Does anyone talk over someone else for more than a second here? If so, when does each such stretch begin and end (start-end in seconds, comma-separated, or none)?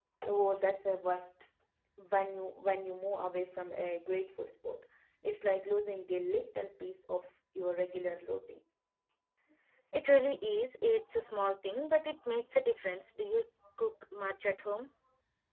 none